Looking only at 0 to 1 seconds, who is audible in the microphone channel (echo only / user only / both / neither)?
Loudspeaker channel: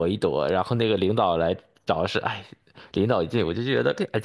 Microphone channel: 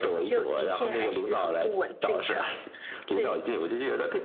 both